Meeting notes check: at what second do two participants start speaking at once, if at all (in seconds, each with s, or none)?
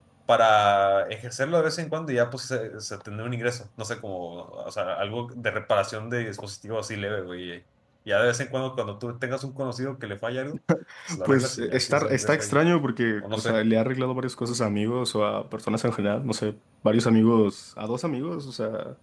11.2 s